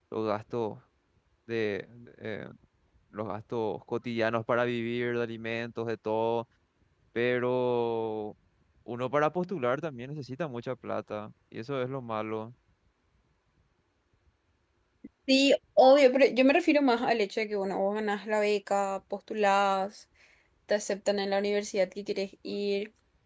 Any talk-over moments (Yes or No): No